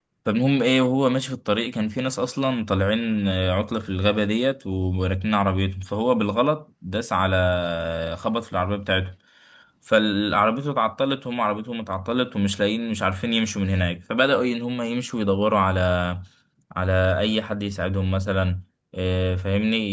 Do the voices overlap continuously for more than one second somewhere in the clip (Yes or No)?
No